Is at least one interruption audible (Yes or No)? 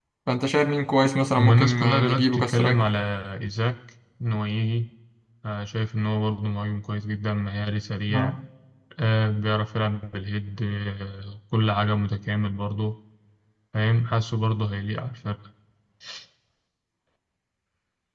Yes